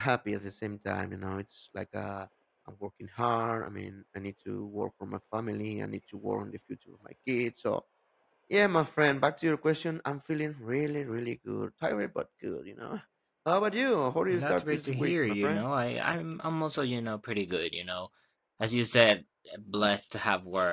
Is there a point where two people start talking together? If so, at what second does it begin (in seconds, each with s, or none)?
14.3 s